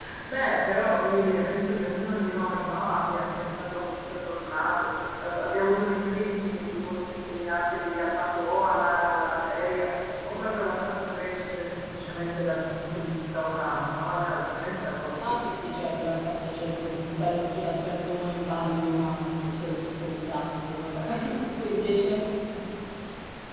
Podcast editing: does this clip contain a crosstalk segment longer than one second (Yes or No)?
No